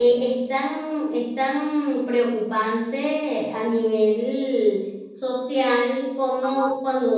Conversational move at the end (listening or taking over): listening